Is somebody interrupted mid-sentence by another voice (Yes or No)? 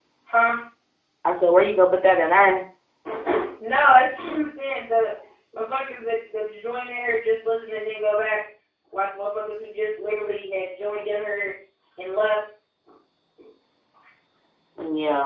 No